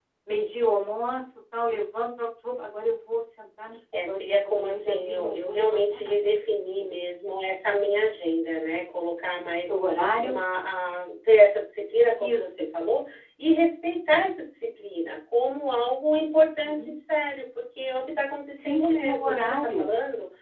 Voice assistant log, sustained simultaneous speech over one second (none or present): present